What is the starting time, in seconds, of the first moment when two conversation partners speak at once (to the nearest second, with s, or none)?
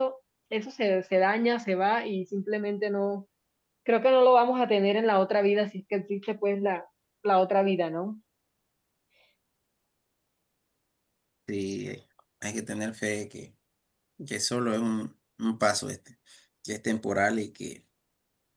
none